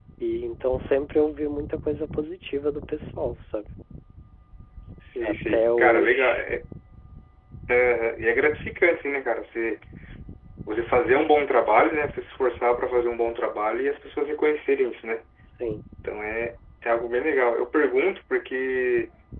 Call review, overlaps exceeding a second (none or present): present